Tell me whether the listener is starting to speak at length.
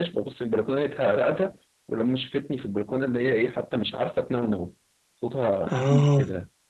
No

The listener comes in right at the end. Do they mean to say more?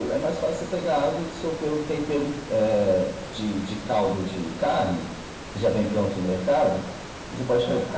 No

